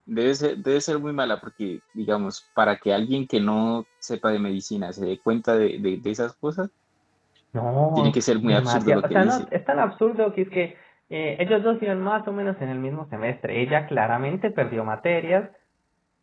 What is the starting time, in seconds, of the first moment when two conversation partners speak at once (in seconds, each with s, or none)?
8.0 s